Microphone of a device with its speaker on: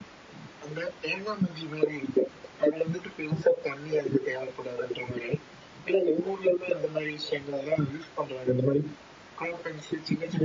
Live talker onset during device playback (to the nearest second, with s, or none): none